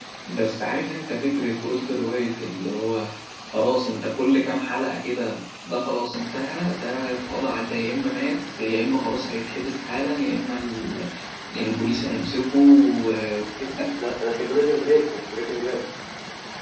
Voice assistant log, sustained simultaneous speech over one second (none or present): none